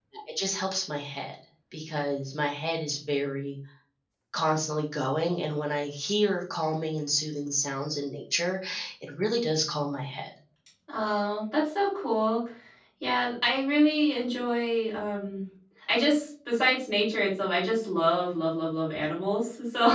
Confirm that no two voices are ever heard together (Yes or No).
Yes